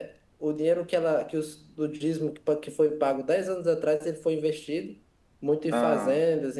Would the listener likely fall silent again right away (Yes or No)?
Yes